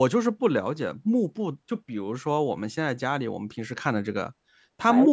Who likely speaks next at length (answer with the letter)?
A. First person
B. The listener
A